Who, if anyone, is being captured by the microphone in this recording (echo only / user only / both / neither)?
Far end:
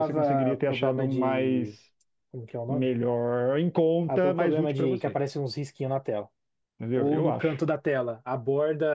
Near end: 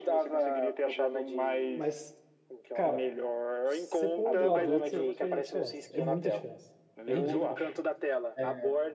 both